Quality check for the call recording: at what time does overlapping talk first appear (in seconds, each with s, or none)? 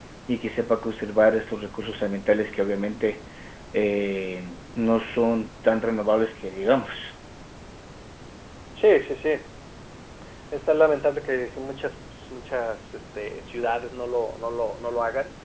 none